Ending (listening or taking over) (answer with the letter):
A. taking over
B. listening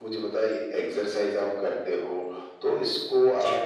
B